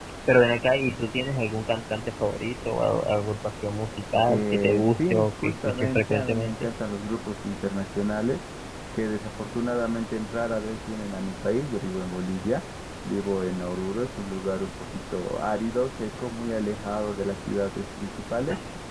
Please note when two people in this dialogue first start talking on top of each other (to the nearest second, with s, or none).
4 s